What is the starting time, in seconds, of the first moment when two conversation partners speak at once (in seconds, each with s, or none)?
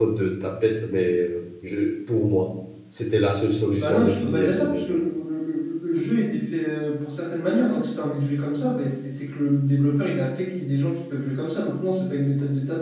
3.8 s